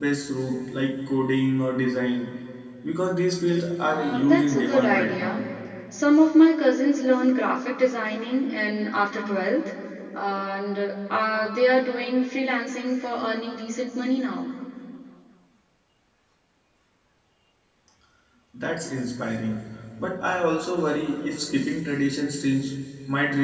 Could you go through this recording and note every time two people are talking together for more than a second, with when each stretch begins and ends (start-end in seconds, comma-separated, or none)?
3.8-5.4